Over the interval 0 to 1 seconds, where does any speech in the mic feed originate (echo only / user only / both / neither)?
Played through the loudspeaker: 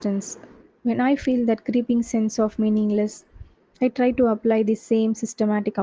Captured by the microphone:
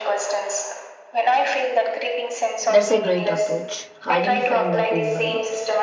echo only